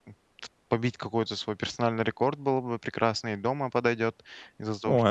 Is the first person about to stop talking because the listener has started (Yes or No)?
No